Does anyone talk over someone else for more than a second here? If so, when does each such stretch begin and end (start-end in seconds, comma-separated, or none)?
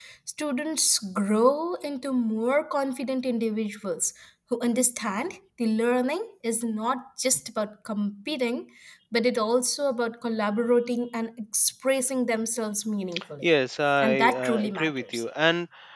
14.0-15.2